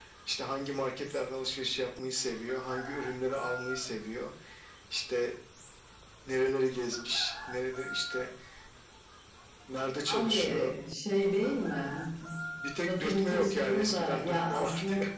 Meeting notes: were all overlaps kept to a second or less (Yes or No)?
No